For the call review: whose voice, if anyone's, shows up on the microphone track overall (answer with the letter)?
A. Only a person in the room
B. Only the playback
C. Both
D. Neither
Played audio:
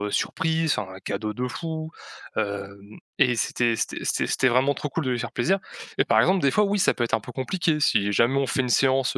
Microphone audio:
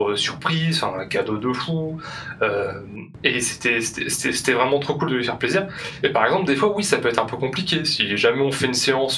B